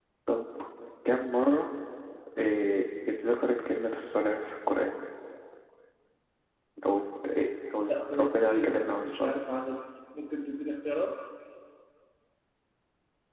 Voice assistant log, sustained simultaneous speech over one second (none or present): present